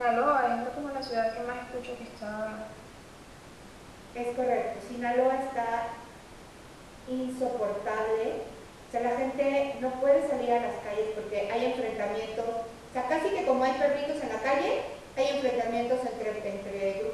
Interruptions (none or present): none